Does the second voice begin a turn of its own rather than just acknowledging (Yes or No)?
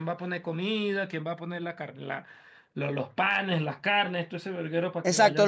Yes